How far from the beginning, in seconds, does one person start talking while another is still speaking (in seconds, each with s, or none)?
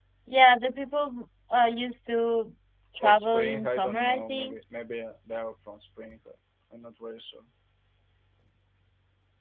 3.0 s